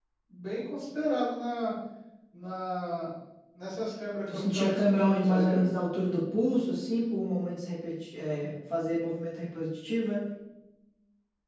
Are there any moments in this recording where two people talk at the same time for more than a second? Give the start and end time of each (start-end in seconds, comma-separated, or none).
4.3-5.6